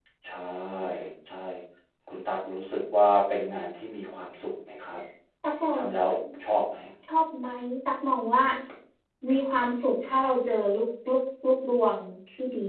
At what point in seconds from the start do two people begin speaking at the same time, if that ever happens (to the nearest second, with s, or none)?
none